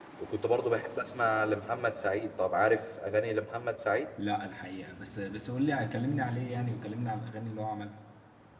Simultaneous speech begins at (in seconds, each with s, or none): none